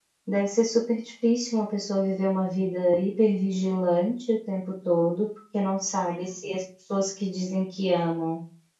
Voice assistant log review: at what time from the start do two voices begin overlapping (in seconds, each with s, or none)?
none